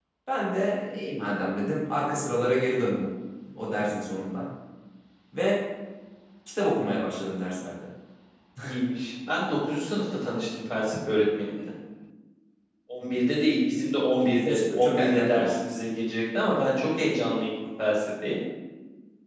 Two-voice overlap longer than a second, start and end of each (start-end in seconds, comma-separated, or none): 14.2-15.9